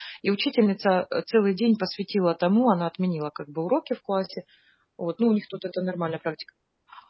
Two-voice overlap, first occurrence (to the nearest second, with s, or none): none